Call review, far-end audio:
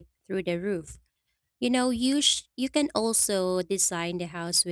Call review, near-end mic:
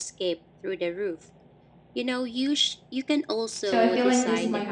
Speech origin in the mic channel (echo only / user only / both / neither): both